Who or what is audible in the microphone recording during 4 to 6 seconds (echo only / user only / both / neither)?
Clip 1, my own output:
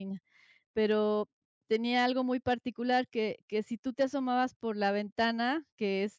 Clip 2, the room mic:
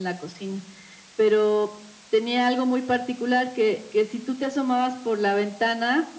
echo only